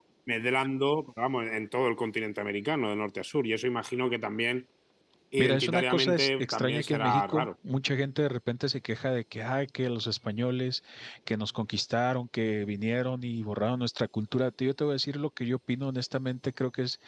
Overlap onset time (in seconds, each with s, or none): 5.4 s